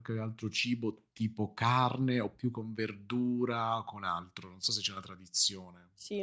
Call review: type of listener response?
taking over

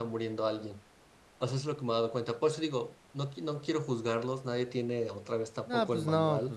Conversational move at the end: taking over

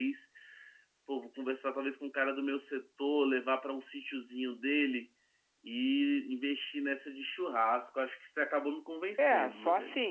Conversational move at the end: taking over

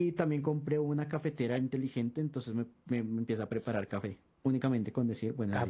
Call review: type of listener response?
taking over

